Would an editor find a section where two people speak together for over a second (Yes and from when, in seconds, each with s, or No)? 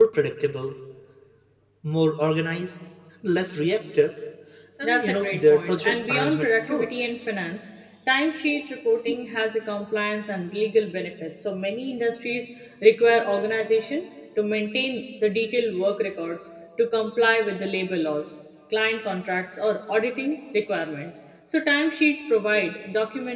Yes, from 4.8 s